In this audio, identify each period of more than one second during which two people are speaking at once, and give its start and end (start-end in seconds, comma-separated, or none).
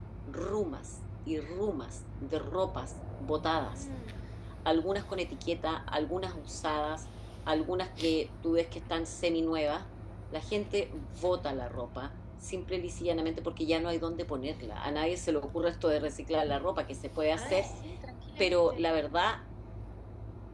none